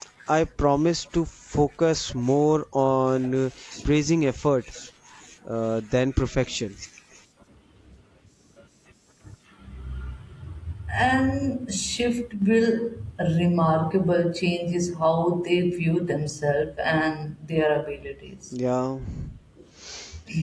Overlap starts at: none

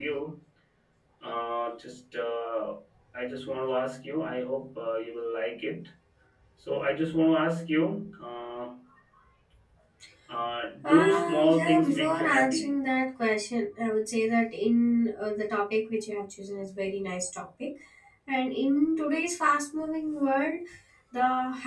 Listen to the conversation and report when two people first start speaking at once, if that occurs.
10.8 s

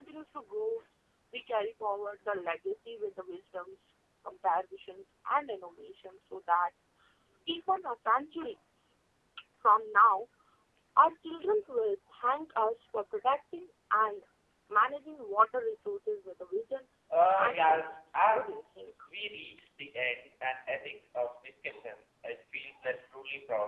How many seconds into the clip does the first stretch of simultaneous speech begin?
17.4 s

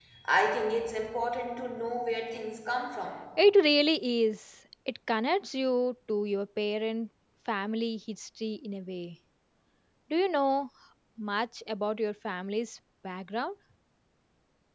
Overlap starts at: none

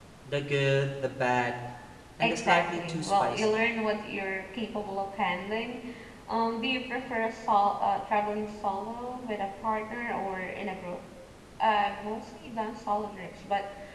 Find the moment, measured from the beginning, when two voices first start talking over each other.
2.2 s

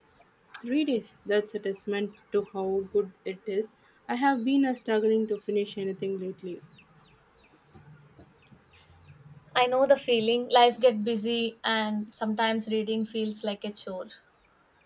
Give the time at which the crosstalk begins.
none

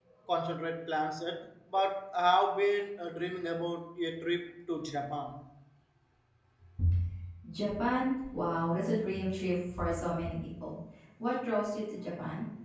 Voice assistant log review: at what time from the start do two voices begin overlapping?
none

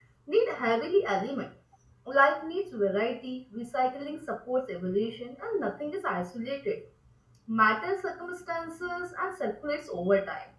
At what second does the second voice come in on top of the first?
none

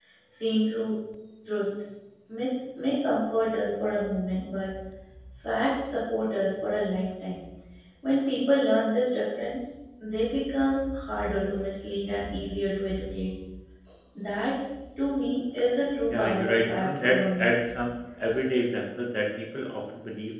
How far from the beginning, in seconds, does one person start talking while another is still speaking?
16.1 s

